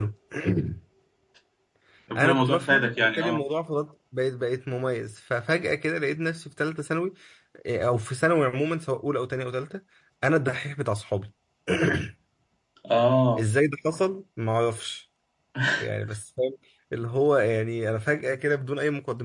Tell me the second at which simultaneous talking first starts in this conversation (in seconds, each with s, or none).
2.1 s